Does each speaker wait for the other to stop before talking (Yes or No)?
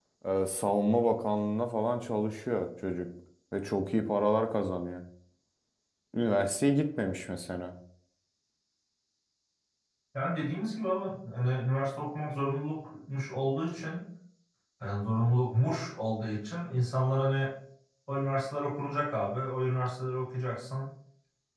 Yes